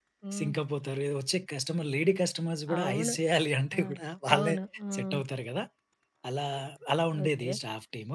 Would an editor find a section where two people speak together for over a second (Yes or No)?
No